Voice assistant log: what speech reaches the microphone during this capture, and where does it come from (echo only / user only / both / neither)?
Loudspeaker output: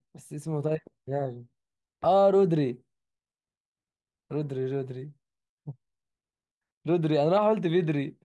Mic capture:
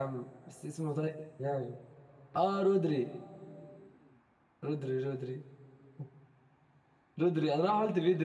echo only